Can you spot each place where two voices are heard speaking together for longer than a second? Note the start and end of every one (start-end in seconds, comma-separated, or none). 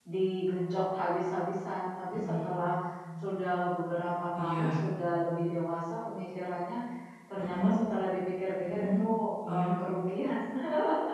none